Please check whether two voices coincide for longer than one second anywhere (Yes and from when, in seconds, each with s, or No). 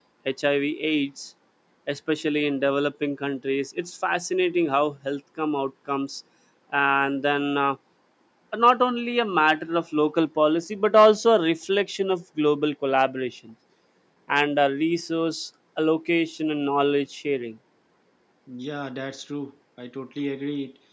No